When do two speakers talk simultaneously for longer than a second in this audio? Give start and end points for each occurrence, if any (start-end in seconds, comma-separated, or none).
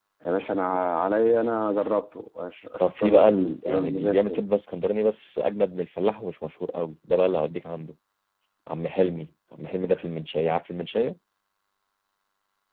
2.8-4.4